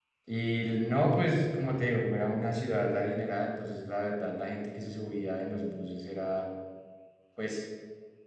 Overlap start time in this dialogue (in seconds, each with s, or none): none